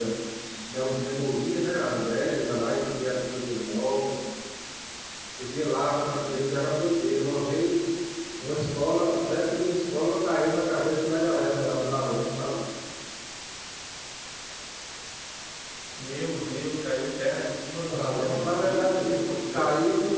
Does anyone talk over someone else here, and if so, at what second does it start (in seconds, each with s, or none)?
17.9 s